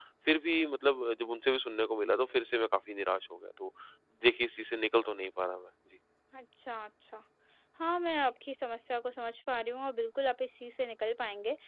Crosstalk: none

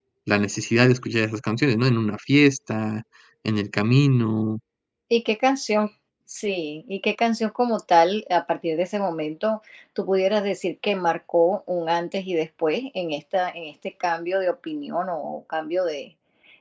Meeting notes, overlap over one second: none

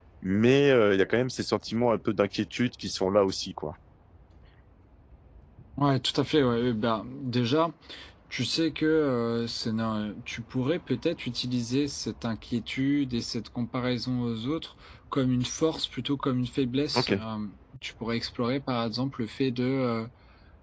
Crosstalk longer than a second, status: none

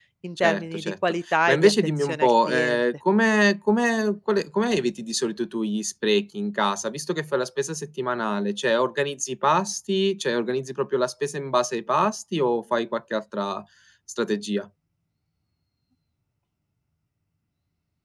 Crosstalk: present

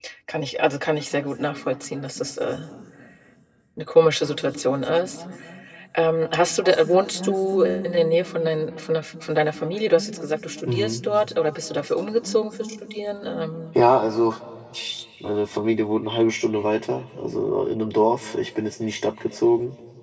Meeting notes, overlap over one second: none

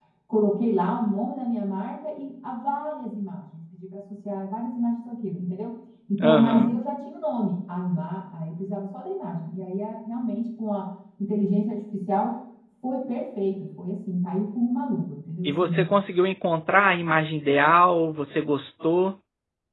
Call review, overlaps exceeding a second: none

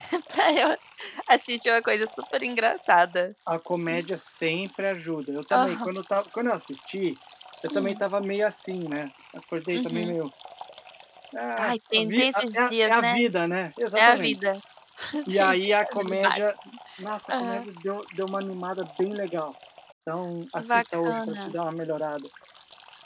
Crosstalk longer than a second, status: present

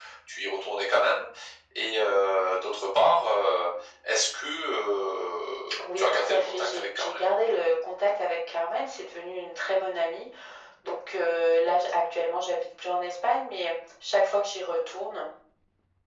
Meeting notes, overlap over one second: present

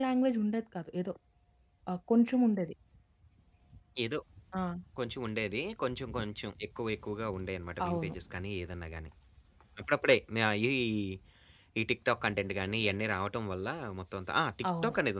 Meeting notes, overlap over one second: none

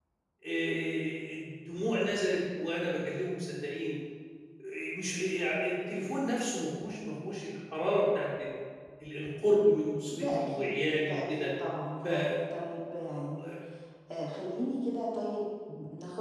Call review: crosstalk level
present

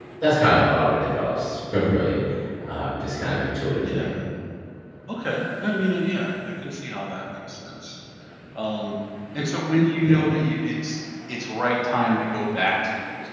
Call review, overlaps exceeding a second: none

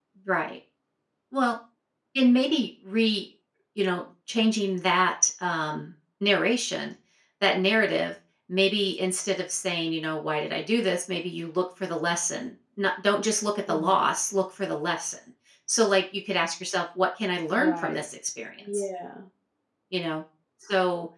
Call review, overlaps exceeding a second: none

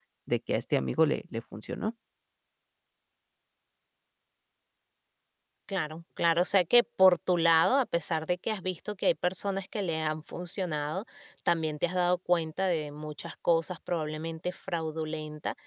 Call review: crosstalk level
none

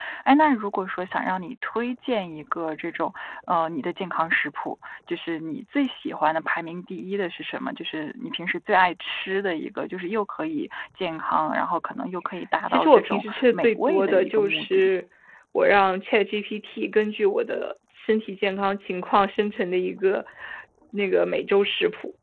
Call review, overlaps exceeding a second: present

